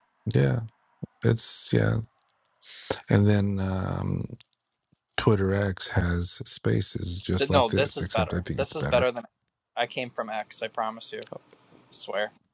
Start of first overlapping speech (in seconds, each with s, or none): 7.4 s